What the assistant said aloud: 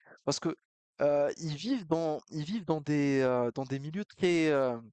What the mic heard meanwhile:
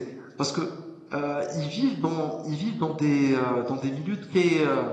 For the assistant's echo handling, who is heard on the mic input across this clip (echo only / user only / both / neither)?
echo only